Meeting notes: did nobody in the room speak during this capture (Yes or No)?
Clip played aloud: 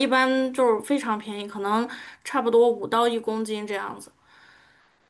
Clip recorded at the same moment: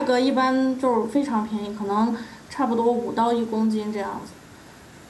Yes